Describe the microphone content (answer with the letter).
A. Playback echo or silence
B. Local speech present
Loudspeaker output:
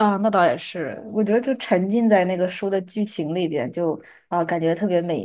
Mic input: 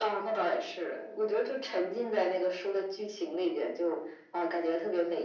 A